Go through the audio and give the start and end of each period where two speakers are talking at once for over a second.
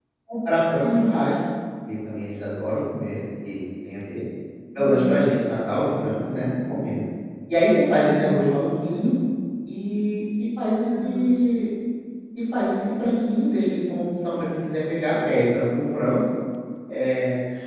none

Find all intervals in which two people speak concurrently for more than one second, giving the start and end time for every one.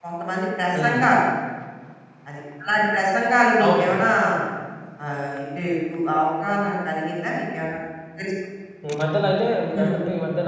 none

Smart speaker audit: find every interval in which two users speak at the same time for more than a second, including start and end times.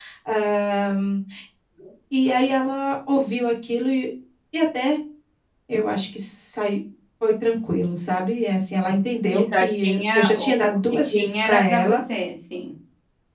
9.3-12.0

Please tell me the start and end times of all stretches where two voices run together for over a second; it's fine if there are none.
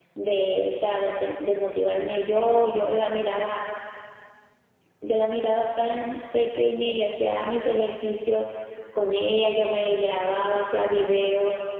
none

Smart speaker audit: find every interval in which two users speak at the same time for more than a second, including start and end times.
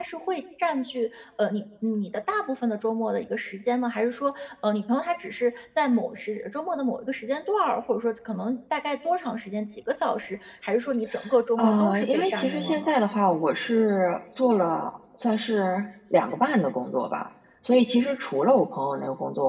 11.6-12.9

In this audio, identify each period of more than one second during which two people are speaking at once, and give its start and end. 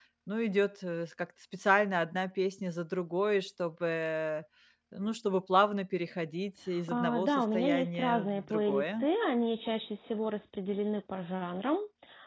6.9-9.1

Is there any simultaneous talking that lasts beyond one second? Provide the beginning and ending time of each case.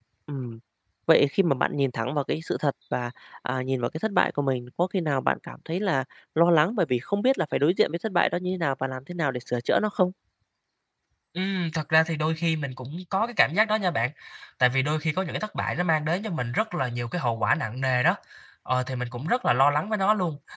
none

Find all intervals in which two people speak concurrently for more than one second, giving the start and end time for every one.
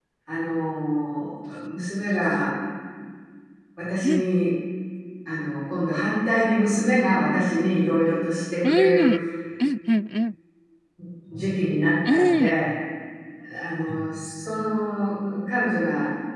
none

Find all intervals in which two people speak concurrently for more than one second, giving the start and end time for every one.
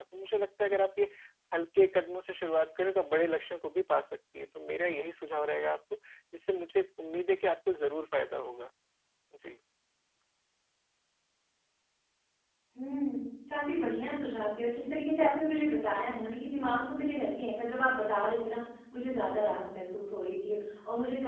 none

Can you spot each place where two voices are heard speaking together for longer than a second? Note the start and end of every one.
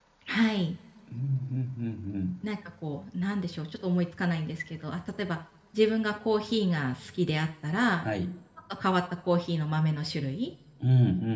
none

